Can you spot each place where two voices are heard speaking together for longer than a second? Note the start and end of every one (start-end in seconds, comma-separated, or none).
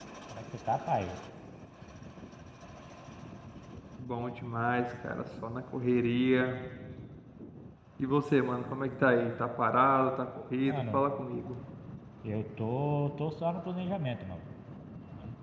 none